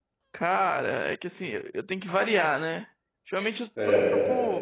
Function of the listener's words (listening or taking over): listening